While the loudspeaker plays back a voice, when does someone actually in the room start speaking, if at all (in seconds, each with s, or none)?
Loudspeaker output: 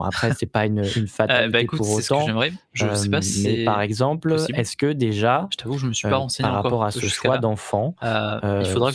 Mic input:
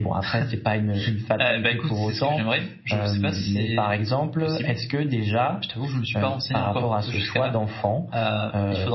none